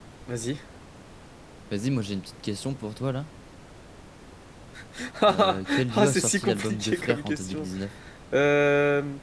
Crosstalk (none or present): present